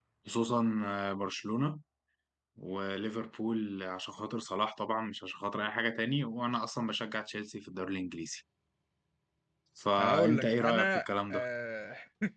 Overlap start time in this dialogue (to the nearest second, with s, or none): 10 s